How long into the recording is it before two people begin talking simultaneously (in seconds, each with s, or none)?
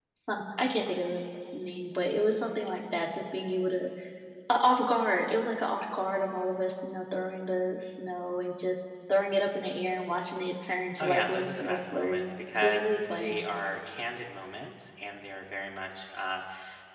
11.0 s